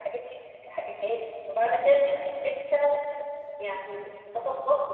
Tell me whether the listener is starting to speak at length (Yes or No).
No